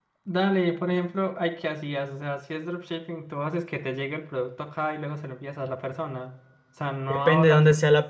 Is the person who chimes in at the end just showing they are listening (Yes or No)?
No